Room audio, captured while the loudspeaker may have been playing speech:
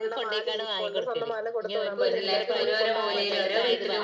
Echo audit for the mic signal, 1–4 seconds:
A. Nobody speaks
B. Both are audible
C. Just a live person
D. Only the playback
B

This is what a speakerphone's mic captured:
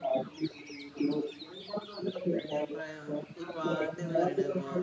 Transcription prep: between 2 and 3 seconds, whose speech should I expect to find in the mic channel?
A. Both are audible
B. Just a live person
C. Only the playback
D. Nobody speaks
A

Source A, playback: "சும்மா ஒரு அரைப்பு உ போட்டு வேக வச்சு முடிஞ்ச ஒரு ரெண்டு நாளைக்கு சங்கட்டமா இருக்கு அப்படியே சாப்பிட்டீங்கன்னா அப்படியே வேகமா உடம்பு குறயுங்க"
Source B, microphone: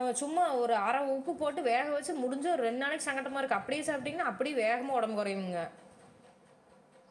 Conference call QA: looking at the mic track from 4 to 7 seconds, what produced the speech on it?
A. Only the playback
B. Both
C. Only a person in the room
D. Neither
A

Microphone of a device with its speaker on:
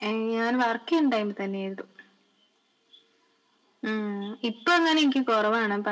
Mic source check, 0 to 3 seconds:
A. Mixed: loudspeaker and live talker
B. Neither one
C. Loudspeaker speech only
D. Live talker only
C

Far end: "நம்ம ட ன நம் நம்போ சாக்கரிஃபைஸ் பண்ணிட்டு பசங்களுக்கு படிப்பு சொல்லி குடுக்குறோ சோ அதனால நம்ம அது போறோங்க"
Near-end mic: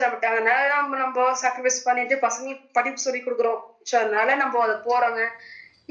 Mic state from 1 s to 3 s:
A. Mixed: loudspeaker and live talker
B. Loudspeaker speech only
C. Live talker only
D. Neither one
B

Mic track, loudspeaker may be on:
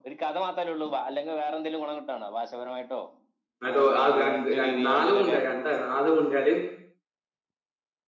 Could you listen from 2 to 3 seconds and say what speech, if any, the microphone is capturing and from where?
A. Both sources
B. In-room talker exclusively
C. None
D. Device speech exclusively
D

